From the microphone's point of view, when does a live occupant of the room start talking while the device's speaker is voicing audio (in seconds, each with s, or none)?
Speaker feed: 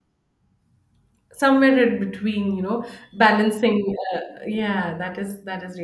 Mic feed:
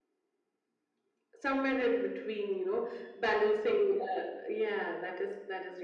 none